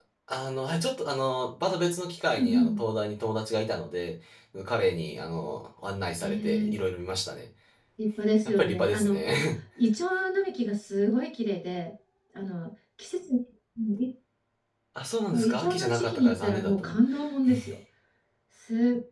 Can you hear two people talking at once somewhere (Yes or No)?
Yes